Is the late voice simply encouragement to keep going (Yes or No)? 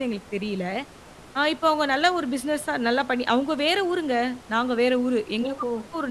No